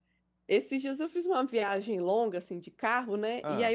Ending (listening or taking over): listening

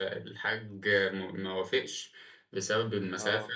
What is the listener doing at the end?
listening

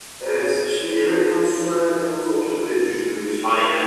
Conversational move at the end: listening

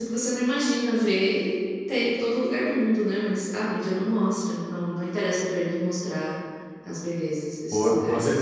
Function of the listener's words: taking over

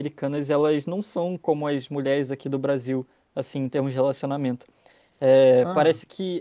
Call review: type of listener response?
listening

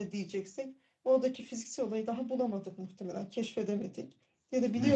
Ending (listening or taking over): listening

